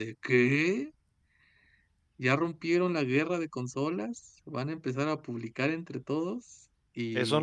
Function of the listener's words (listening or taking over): taking over